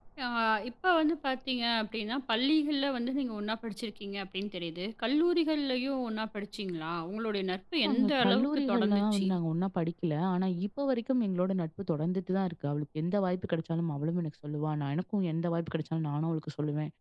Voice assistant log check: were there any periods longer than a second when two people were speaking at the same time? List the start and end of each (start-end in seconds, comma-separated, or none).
7.9-9.3